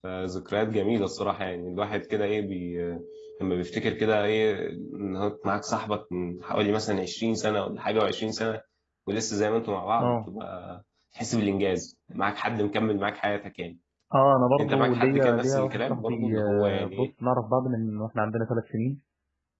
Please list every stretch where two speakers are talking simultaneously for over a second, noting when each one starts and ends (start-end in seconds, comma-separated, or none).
14.6-17.1